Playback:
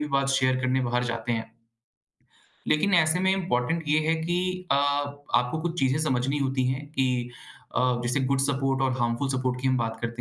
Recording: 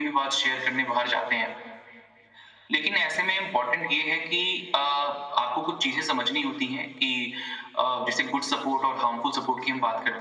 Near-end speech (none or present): none